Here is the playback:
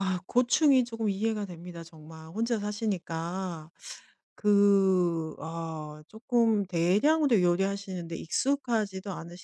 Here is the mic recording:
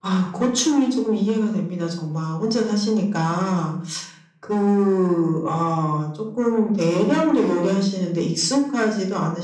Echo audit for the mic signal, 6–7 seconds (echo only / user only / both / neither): echo only